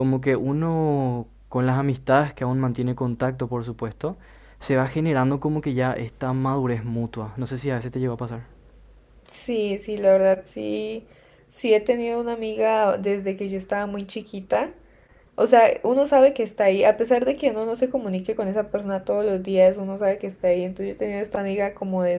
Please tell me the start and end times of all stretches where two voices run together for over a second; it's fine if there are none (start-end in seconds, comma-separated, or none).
none